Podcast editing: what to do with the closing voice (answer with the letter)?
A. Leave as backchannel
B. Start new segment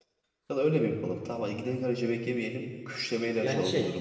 A